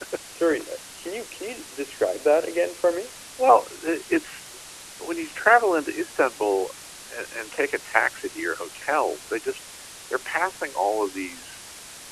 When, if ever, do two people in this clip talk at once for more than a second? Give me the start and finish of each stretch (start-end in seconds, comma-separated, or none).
none